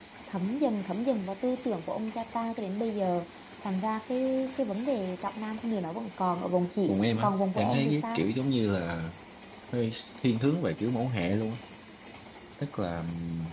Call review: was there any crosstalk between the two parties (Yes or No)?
Yes